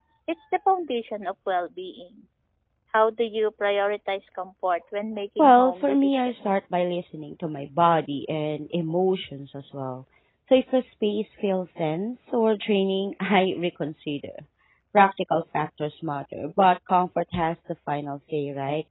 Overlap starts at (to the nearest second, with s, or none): 5 s